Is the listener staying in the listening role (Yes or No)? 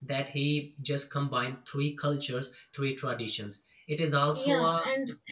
No